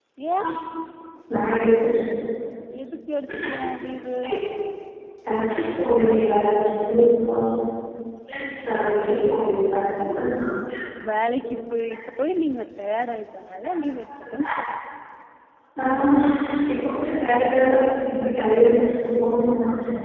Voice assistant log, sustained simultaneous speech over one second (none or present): none